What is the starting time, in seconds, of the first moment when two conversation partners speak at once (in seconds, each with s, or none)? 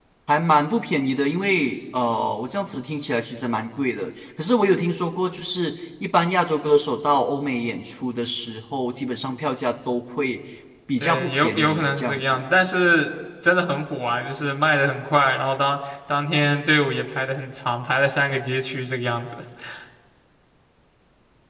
11.0 s